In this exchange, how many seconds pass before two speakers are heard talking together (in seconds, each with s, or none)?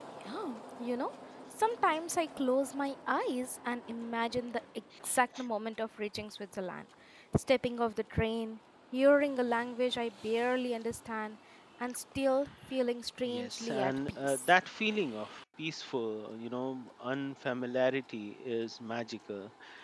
13.3 s